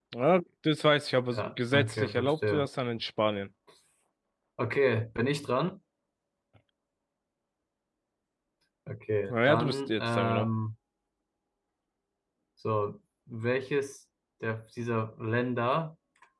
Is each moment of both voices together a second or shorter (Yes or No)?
No